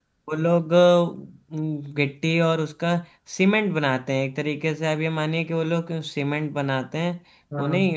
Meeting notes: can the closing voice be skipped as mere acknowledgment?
Yes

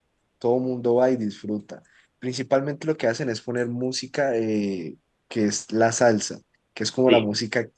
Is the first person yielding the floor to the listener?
No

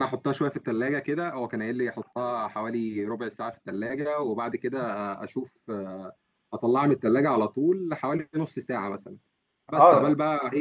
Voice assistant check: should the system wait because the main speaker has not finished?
Yes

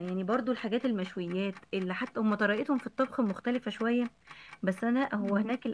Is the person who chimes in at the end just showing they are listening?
Yes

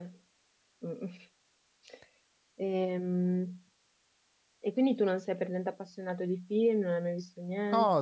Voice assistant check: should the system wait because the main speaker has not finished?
No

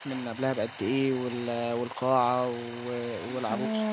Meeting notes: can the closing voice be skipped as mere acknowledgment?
No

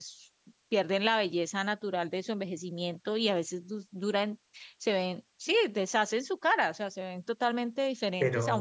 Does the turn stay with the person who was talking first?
Yes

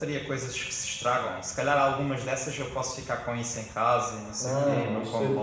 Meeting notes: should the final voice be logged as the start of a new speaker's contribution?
Yes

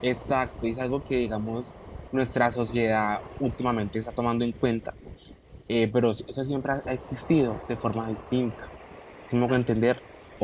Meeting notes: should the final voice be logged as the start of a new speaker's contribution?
No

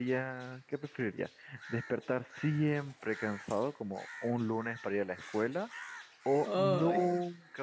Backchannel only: Yes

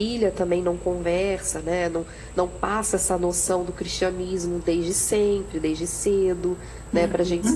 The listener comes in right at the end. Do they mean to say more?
No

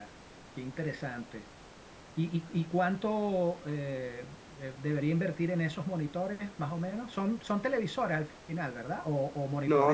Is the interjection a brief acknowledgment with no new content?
No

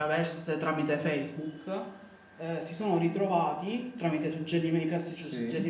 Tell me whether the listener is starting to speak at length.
No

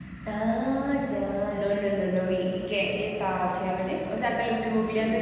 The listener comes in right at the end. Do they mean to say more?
No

